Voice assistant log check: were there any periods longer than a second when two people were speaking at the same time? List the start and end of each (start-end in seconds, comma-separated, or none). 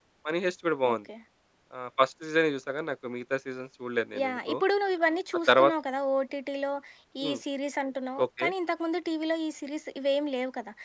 none